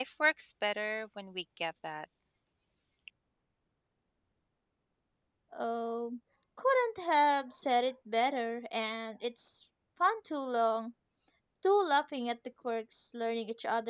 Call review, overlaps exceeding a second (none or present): none